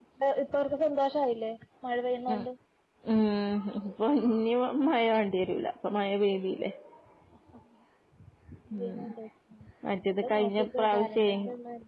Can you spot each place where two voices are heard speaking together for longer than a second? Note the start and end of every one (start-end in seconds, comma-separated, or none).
10.0-11.2